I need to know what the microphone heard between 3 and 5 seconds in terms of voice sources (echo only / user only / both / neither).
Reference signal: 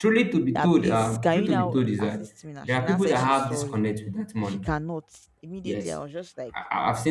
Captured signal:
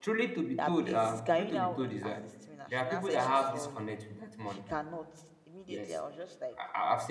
echo only